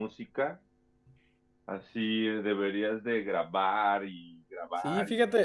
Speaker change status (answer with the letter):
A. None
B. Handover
B